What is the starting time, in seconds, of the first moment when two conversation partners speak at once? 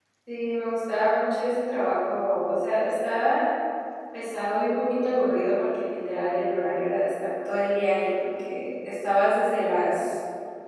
none

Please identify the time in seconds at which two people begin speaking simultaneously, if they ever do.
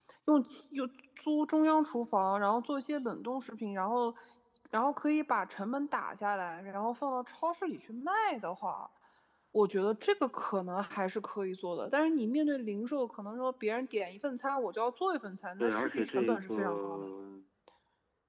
15.6 s

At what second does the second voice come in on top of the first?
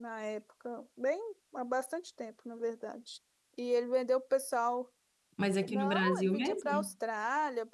5.7 s

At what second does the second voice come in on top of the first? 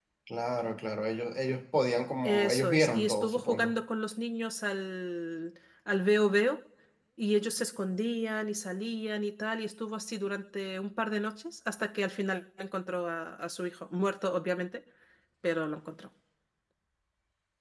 2.2 s

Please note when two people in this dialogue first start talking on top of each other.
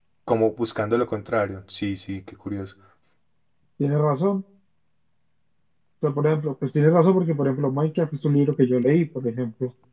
none

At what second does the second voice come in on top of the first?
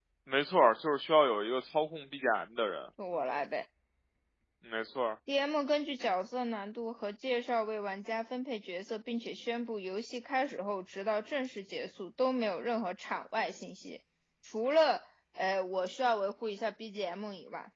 none

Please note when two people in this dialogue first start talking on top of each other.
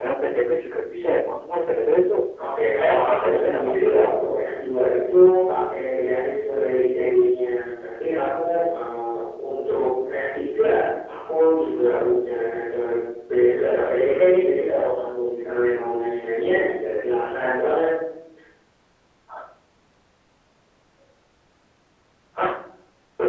2.8 s

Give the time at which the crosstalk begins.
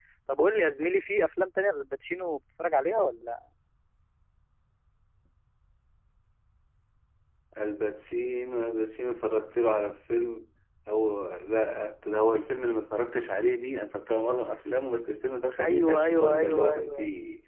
15.6 s

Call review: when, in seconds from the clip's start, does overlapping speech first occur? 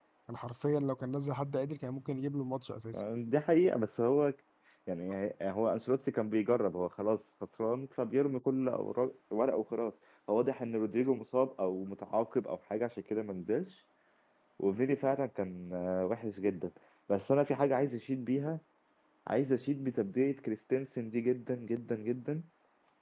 none

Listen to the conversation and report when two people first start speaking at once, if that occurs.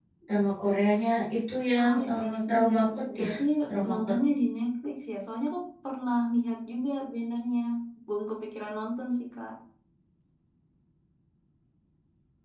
1.8 s

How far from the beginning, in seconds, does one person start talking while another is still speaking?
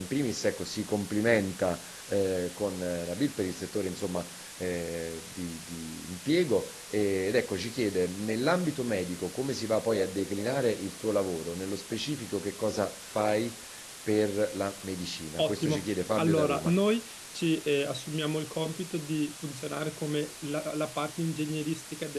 15.4 s

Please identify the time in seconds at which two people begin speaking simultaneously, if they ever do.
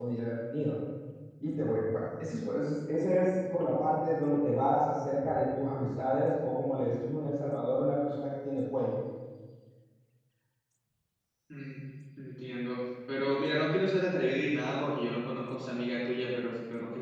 none

